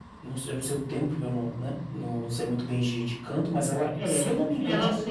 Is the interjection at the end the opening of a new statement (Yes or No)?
Yes